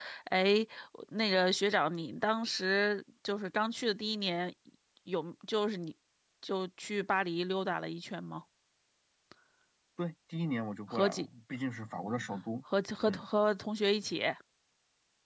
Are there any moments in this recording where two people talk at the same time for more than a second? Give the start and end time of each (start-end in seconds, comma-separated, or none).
none